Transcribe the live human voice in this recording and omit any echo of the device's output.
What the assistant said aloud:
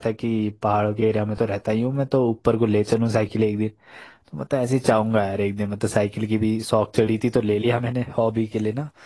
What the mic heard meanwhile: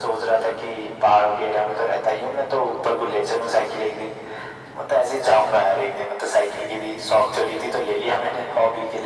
none

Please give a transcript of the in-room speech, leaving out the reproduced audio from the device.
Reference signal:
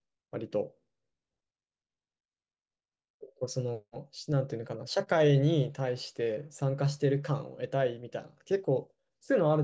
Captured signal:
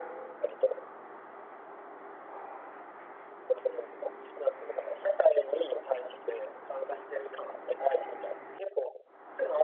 none

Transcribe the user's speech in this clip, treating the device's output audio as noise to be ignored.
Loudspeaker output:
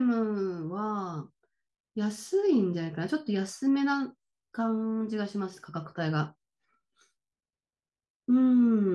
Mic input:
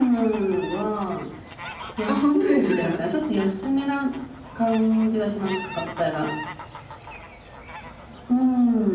あ、本当ですか

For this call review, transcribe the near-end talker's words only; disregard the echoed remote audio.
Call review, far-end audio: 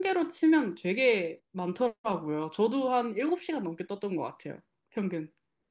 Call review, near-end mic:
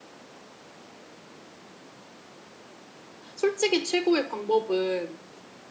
솔직히 최고의 방법은

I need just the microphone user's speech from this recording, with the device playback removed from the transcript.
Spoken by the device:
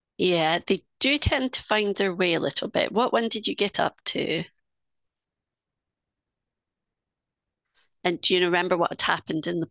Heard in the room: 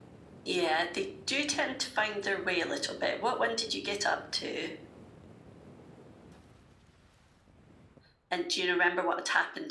none

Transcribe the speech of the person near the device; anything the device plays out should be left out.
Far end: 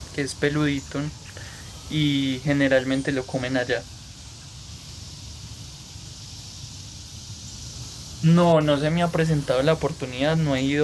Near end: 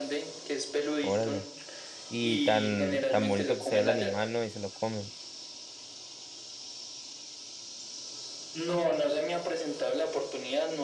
Órale. y tan, tan bonito que se ve el animal, ¿no? Y se lo comen.

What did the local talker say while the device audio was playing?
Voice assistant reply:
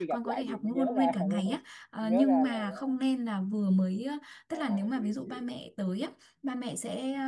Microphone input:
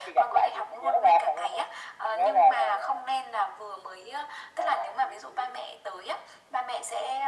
none

